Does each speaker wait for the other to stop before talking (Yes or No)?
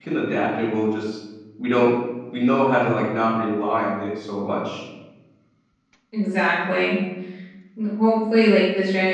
Yes